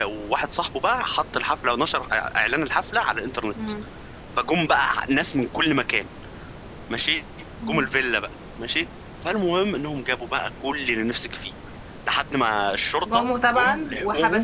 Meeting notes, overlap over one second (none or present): present